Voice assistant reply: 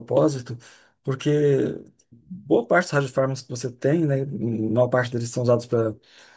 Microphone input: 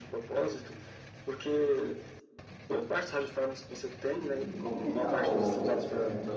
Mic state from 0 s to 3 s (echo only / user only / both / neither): echo only